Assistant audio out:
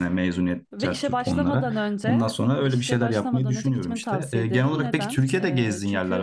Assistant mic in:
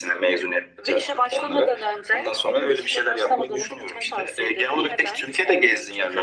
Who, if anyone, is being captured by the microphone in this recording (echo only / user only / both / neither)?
echo only